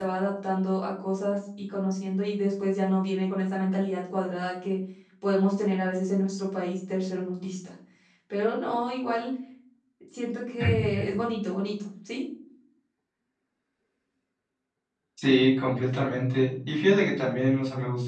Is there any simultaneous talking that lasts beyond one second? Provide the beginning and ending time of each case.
none

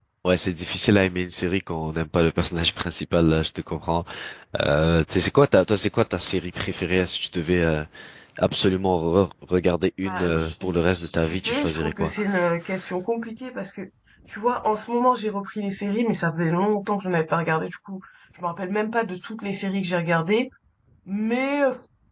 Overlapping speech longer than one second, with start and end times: 10.1-12.1

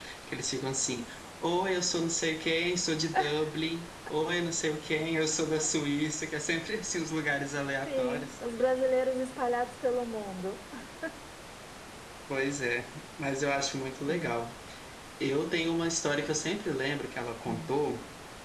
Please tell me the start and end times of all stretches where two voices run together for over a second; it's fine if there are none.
none

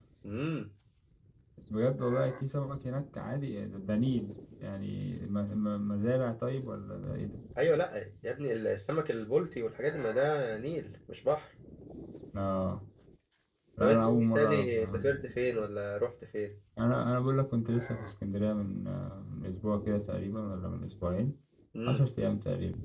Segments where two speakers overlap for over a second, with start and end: 13.8-15.2

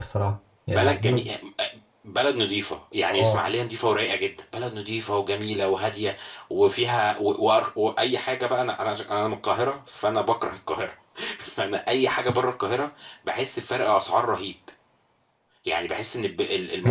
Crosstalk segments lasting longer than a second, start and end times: none

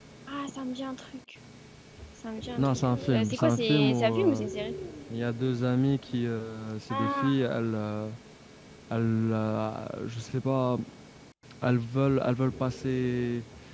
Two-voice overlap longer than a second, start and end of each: 2.6-4.4

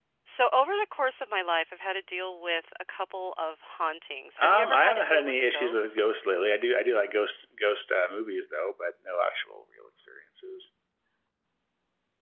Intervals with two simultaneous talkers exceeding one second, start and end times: 4.4-6.0

